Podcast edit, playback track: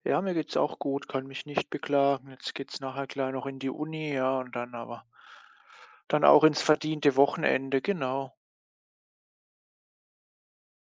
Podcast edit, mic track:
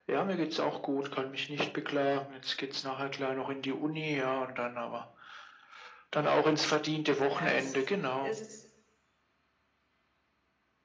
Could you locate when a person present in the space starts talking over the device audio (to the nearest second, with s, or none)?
7 s